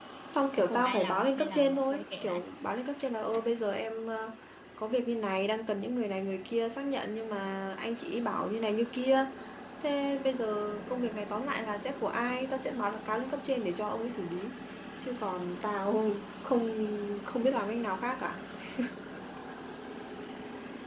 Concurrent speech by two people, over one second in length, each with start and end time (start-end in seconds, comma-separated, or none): 0.6-2.4